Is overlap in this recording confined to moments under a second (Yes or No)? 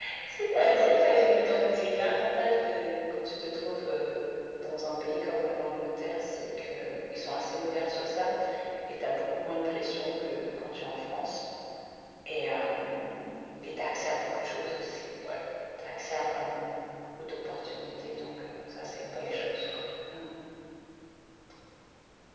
No